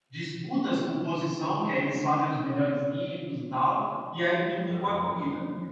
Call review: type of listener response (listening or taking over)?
listening